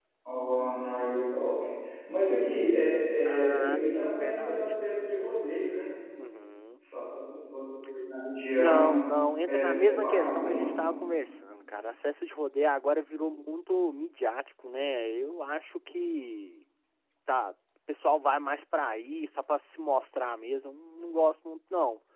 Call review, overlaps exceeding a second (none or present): present